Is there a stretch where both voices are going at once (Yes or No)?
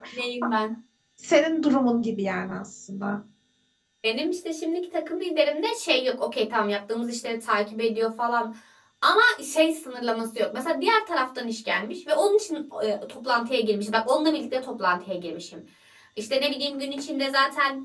No